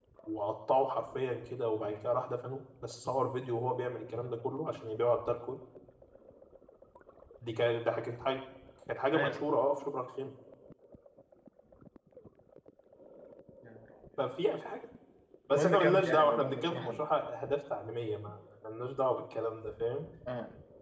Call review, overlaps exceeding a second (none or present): present